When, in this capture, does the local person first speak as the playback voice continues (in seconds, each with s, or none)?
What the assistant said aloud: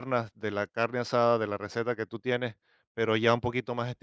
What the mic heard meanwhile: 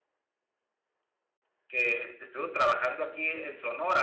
1.7 s